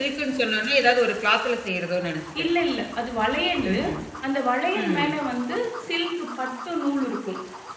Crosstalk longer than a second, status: none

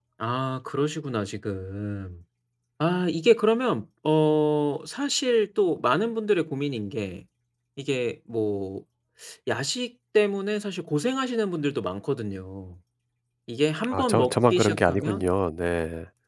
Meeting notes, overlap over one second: present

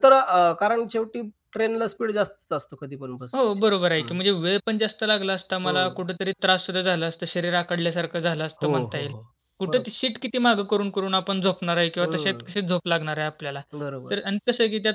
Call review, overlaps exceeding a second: none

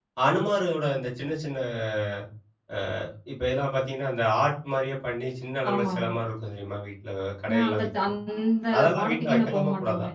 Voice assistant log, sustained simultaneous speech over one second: present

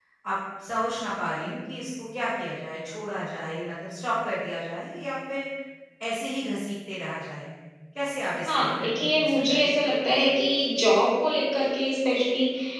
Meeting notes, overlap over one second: present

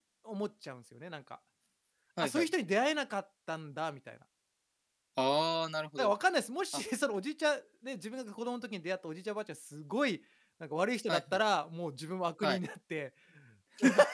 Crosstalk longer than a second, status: none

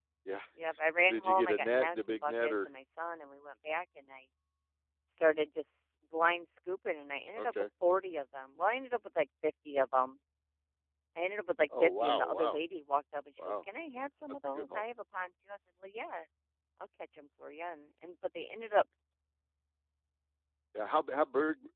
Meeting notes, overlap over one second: present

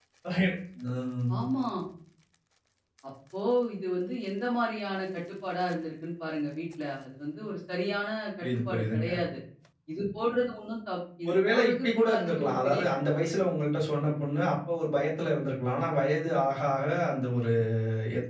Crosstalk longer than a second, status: present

